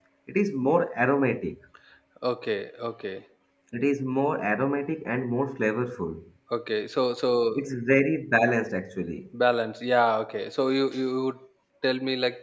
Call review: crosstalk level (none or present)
none